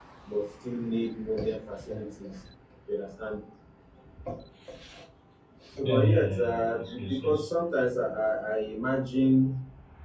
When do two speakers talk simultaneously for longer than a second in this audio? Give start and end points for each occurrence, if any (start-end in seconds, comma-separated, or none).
5.8-7.5